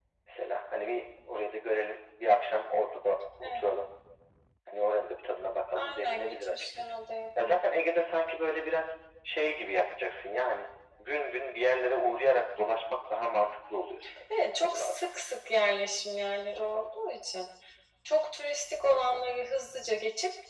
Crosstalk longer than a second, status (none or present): present